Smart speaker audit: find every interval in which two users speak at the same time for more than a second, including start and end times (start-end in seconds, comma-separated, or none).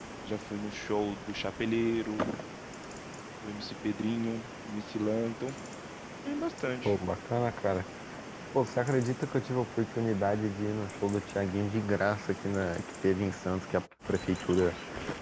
none